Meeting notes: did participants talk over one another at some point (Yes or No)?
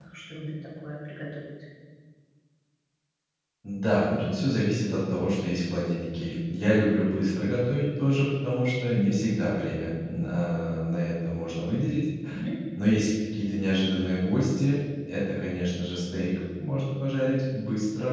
No